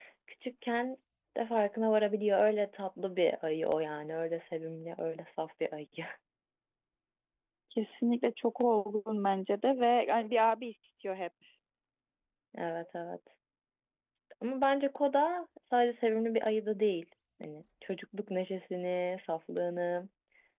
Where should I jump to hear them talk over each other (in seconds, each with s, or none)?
none